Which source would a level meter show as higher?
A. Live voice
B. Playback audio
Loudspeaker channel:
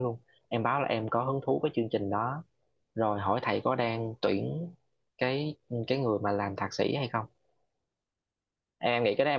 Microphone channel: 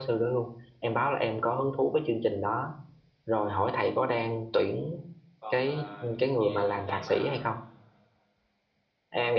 B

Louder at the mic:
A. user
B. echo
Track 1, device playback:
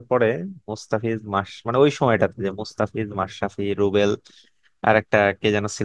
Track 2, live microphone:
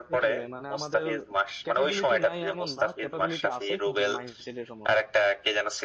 B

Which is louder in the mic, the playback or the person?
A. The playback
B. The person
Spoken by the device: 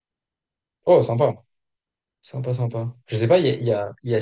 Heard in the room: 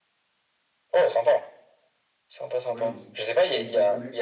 A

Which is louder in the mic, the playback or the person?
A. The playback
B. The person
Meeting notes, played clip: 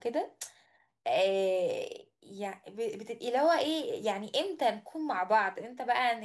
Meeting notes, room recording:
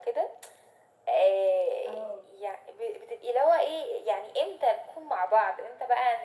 A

